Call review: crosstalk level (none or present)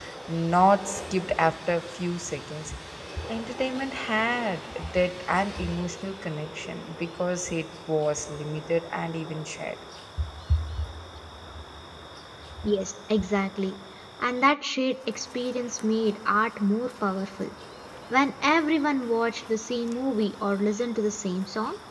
none